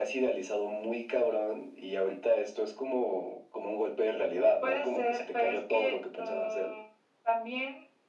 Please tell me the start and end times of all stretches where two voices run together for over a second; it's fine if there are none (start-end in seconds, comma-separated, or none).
4.6-6.7